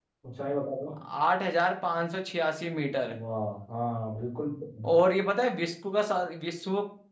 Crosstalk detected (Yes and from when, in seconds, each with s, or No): No